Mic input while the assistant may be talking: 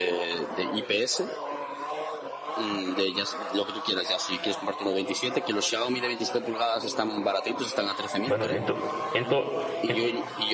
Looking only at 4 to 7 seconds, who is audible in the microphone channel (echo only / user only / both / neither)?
echo only